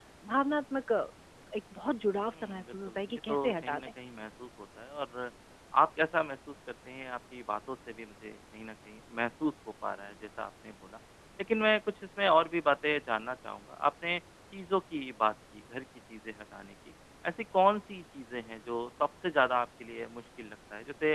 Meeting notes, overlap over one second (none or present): present